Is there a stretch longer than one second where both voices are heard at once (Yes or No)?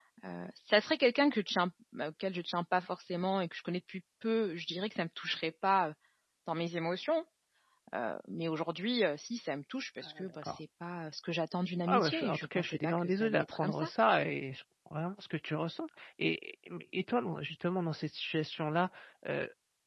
Yes